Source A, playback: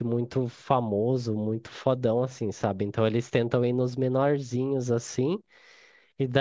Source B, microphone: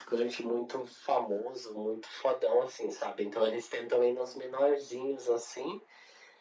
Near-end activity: none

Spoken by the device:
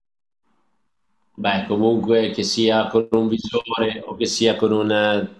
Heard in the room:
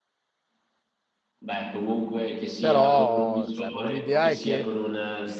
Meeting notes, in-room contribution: present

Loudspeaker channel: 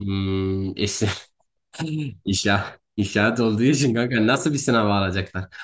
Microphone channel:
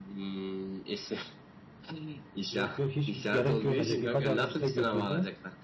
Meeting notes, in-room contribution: present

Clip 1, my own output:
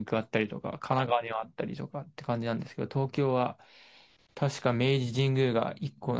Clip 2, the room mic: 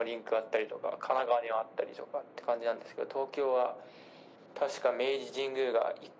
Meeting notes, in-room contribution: none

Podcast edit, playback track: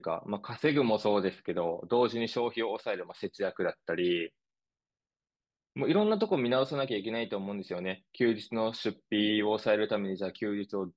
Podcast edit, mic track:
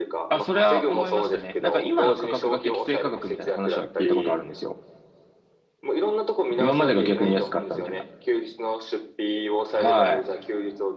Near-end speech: present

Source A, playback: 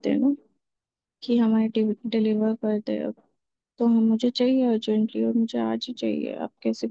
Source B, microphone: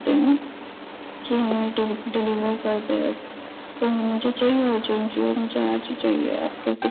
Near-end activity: none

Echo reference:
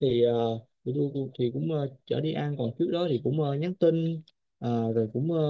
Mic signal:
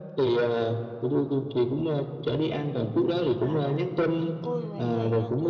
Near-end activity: present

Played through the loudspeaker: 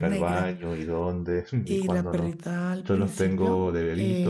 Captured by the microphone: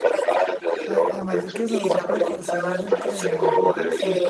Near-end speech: present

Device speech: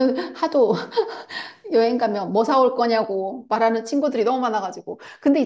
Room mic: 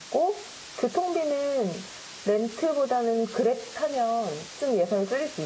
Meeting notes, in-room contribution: present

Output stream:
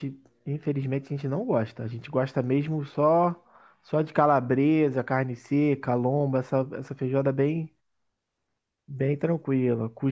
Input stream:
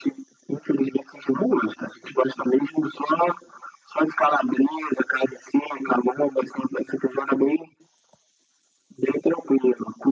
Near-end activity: none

